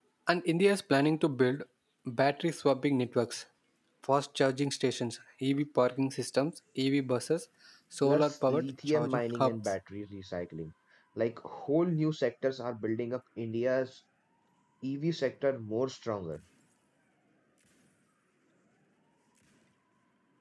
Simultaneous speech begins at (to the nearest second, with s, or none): 8 s